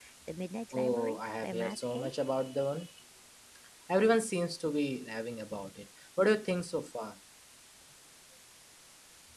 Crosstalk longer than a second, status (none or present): present